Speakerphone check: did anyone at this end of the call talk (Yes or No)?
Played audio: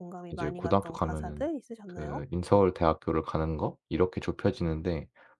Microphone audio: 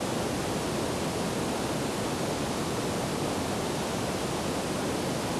No